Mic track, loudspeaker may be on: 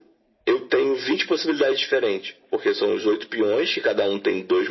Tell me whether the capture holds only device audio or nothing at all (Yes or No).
Yes